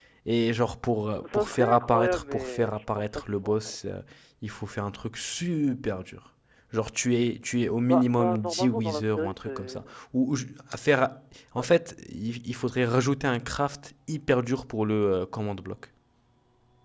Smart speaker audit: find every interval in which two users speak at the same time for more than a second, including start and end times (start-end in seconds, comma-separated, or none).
1.1-3.8, 7.9-9.9